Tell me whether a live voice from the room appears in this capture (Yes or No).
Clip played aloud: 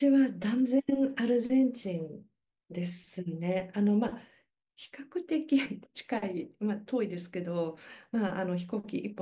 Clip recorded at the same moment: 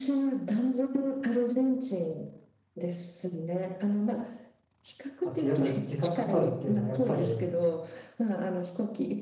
Yes